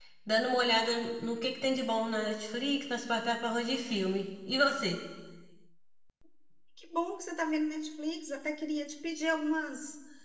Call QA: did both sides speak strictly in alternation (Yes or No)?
Yes